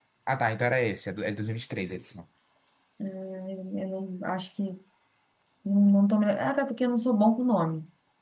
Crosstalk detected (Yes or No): No